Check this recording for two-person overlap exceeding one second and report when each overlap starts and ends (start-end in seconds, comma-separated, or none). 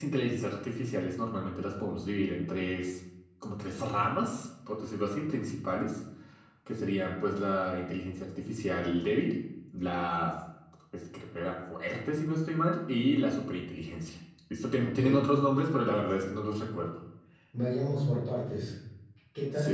none